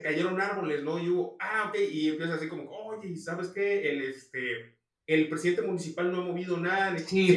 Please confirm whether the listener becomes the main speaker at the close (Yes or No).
Yes